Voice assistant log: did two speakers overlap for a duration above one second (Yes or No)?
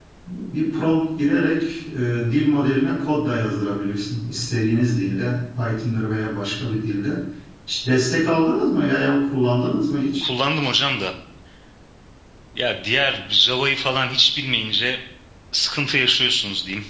No